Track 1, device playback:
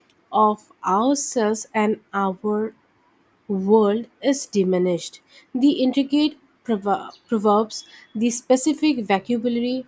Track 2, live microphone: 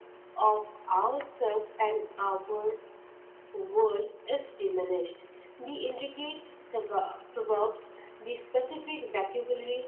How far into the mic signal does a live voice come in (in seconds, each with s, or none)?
none